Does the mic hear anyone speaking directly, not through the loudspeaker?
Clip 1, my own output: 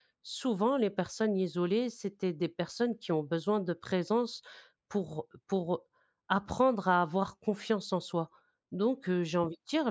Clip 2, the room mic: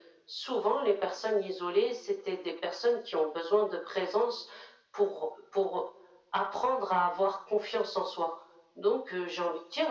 No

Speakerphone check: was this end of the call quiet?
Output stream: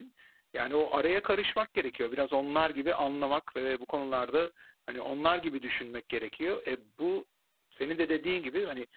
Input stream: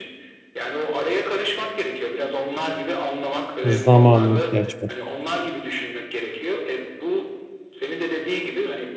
No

